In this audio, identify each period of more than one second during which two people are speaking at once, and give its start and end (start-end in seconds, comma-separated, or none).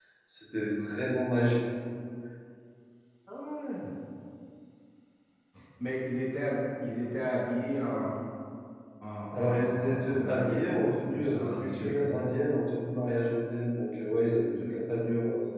9.3-12.0